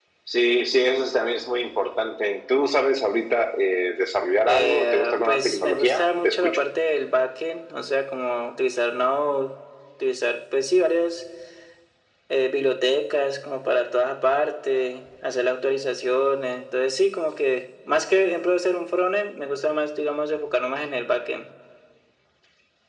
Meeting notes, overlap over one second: present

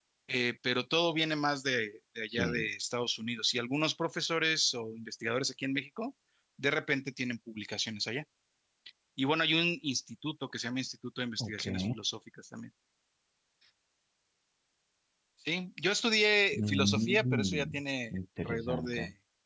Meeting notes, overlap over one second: present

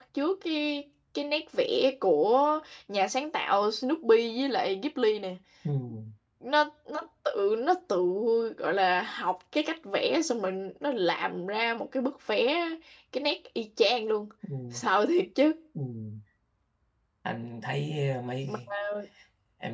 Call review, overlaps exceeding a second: none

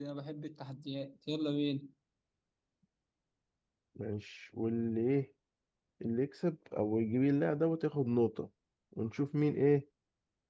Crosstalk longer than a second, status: none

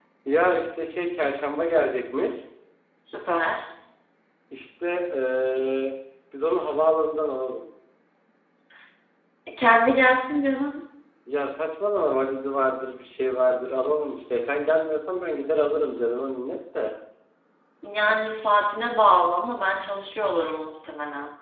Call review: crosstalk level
none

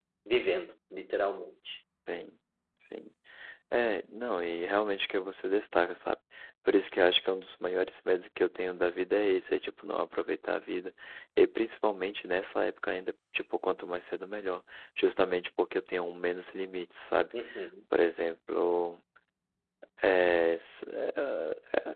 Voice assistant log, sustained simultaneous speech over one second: none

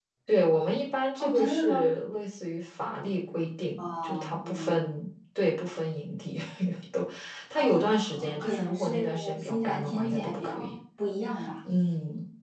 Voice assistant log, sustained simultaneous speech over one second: present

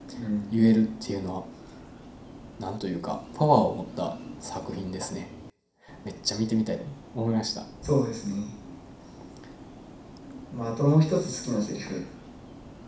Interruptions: none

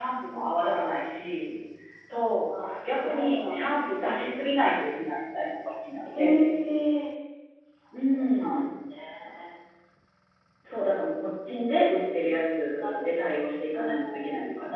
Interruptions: present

